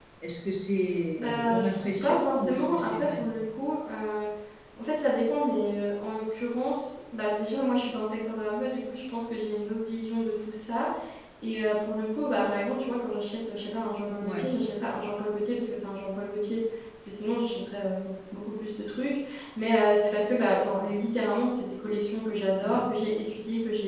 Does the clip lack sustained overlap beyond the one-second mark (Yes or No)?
No